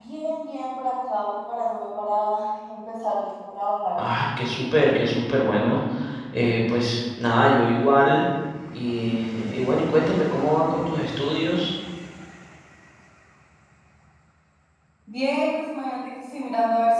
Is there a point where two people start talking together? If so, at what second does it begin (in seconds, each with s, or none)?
none